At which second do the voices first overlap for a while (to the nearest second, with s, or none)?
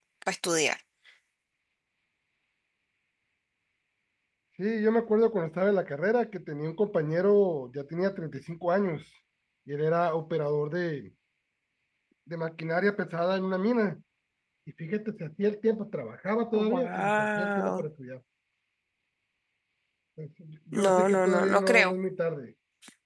17 s